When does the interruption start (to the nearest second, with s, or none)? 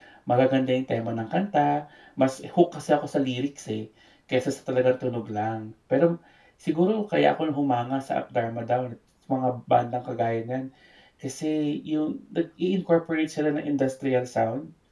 none